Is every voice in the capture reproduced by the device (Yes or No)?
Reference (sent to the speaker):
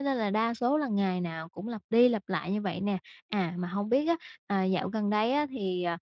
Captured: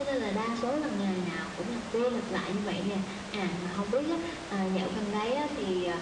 Yes